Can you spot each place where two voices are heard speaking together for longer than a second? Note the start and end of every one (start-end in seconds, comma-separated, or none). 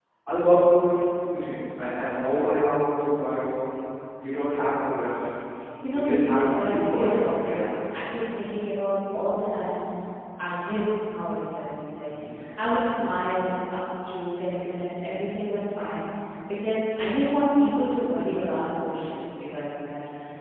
5.9-7.8